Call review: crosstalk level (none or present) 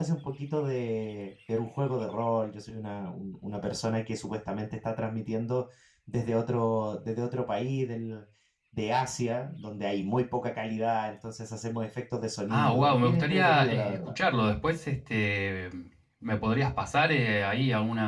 present